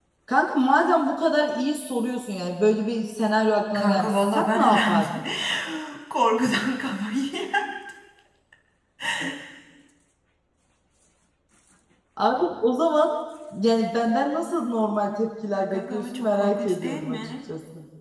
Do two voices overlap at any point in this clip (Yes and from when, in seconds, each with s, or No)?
Yes, from 3.7 s